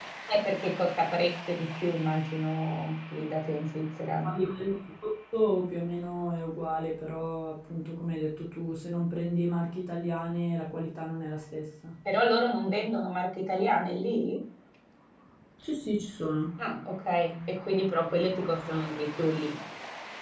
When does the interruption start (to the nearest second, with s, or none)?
none